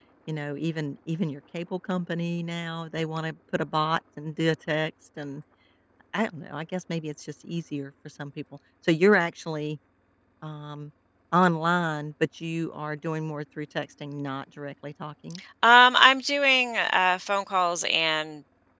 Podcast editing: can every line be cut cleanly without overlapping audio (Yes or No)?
Yes